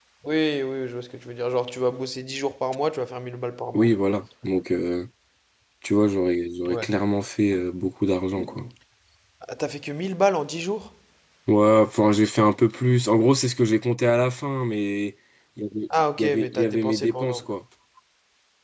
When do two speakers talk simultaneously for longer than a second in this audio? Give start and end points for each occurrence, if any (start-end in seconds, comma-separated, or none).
16.2-17.4